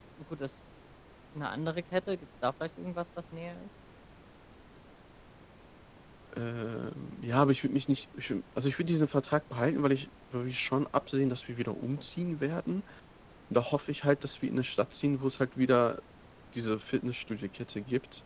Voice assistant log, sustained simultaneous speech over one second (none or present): none